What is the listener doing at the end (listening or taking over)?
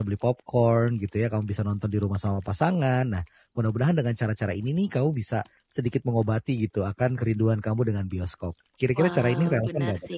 taking over